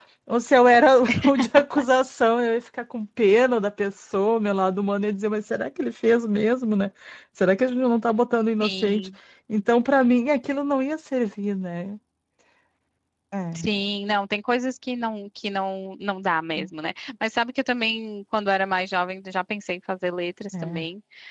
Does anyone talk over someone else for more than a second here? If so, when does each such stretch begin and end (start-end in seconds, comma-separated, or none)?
none